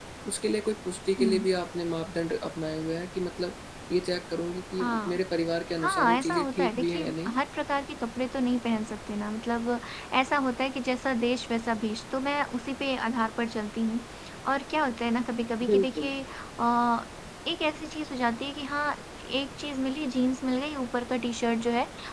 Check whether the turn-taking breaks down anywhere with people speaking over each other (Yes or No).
Yes